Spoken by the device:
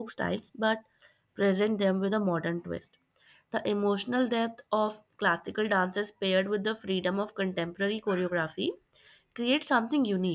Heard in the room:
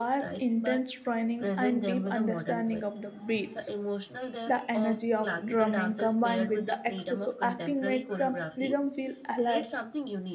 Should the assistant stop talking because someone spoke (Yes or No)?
Yes